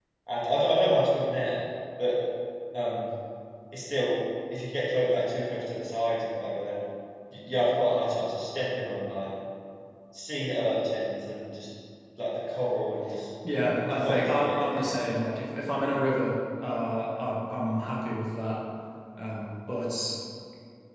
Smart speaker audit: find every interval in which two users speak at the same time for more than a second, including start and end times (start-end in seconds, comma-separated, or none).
13.8-15.2